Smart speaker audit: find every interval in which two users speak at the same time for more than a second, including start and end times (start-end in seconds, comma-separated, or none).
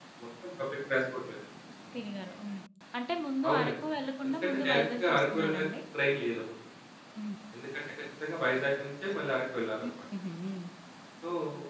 4.2-5.7